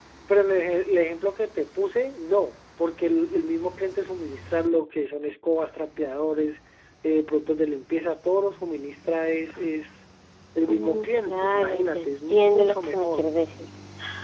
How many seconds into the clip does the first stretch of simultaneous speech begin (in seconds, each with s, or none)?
10.7 s